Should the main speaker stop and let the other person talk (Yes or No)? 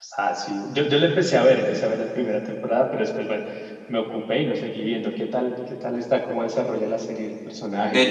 Yes